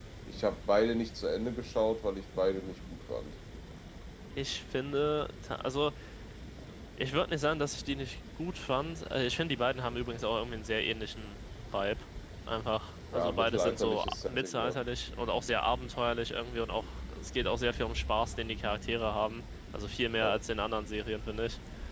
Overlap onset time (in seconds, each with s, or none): 13.1 s